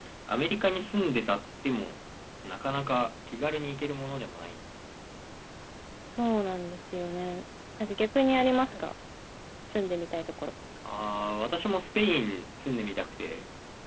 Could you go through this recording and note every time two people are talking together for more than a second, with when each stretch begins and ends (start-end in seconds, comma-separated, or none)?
none